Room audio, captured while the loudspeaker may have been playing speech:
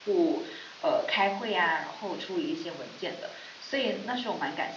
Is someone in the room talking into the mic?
Yes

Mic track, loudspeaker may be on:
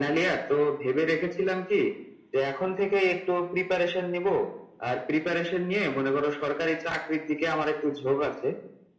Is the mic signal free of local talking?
Yes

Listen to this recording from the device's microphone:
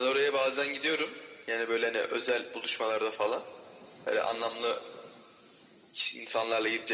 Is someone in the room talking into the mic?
No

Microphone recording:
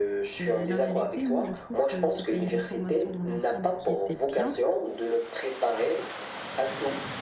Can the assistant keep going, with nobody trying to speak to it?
No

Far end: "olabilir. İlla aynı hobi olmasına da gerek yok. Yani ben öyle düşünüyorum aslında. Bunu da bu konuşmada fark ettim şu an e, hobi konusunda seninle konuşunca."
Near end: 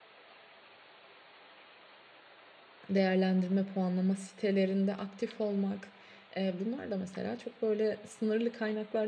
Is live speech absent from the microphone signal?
No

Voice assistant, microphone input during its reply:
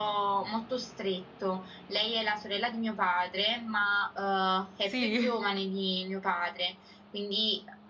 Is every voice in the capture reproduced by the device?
No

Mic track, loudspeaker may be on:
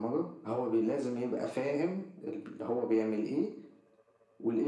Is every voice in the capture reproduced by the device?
Yes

